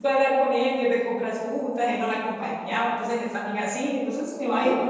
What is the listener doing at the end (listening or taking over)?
taking over